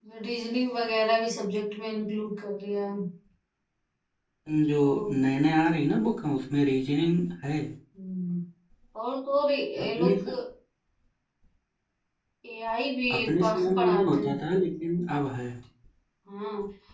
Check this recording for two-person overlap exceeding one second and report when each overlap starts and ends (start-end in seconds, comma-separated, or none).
13.1-14.3